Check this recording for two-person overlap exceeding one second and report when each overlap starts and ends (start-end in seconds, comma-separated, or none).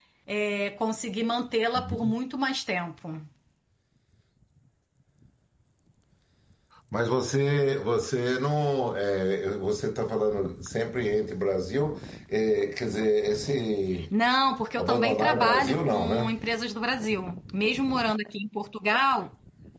14.8-16.3